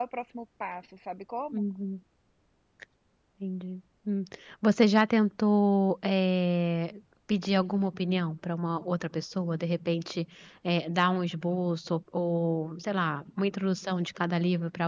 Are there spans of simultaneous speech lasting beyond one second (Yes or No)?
No